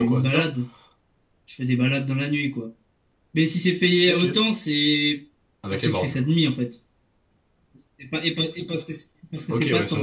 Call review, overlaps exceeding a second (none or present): none